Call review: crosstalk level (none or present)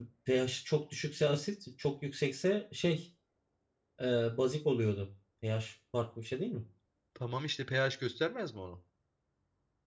none